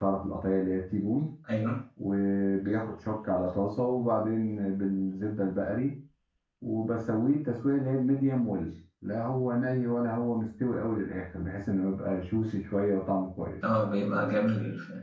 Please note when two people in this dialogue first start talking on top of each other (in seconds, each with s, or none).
none